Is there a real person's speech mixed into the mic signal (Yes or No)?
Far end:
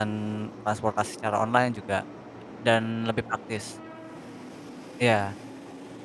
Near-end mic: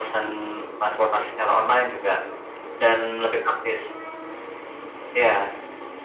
No